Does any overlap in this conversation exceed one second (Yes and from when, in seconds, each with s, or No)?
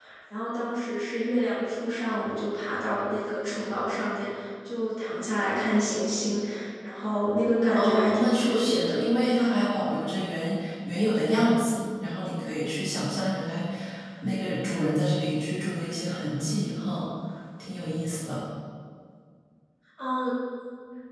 Yes, from 7.8 s